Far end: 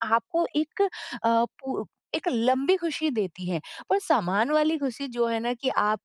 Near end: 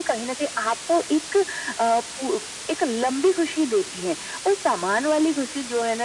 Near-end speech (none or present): none